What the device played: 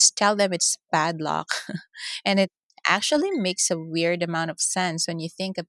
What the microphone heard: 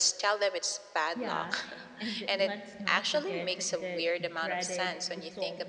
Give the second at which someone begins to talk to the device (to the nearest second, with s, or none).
1 s